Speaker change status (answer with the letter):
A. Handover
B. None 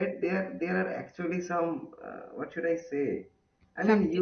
B